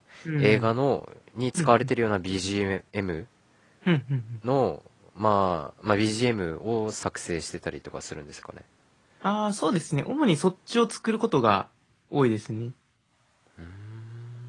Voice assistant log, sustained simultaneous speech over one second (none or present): none